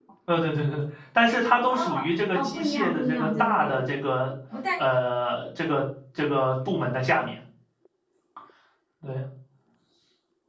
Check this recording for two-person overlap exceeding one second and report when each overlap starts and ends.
2.3-3.9

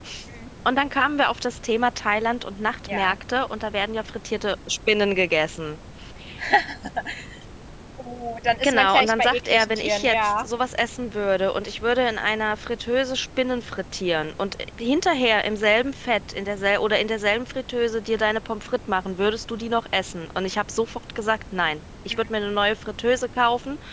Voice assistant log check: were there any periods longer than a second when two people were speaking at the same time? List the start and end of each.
8.6-10.5

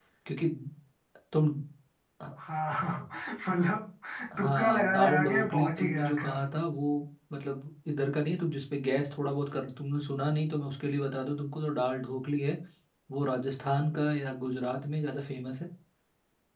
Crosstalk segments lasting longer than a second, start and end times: 4.4-6.4

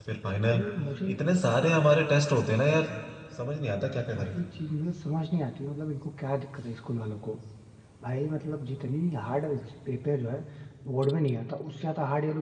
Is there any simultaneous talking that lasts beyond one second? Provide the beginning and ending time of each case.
none

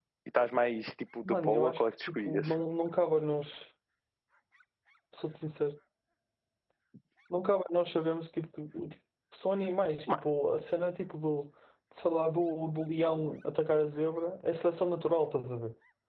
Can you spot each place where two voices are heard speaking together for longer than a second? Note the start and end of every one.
1.2-2.5

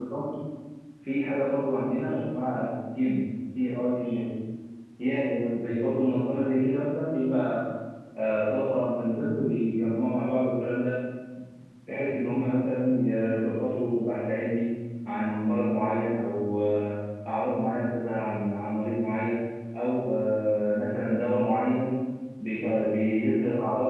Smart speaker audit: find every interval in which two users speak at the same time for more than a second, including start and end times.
none

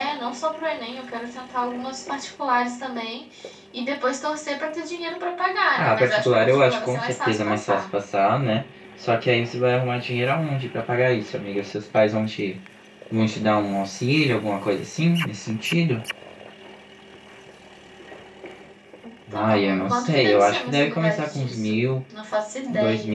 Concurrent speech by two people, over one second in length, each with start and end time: 5.8-7.8, 19.3-21.7

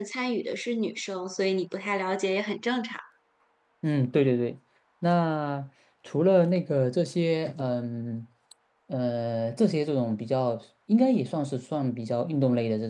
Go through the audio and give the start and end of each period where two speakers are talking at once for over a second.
none

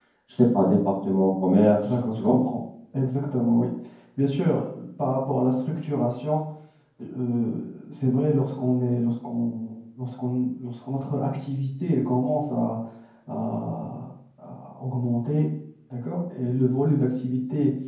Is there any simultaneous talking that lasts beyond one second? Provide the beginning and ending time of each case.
none

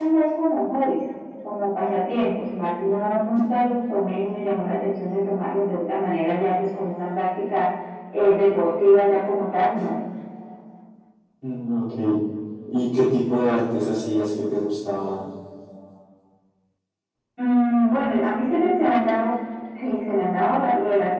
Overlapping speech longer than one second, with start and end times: none

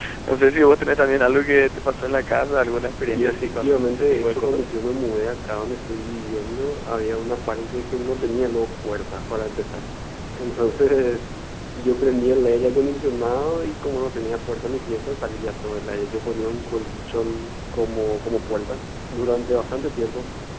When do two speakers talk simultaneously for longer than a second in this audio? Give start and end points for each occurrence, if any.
3.1-4.7

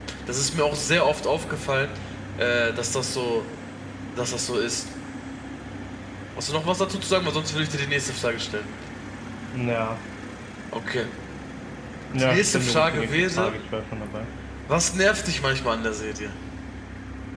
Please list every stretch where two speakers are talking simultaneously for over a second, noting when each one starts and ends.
12.2-13.6

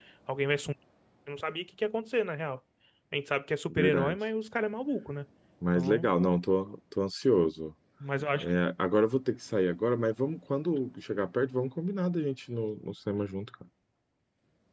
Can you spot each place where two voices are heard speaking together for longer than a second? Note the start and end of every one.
none

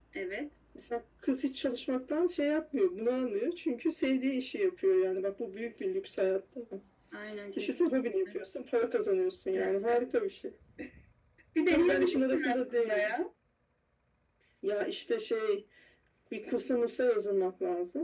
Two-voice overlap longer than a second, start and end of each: 11.7-13.1

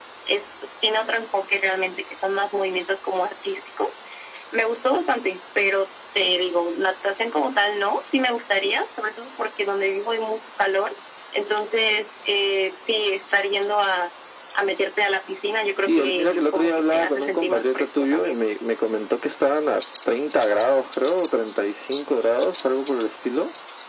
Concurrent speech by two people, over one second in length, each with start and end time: 15.9-18.4

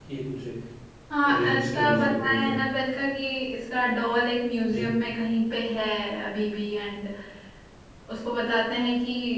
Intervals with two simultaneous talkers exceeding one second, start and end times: 1.2-2.5

